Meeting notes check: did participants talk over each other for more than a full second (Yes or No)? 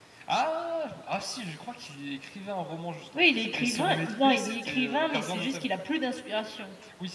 Yes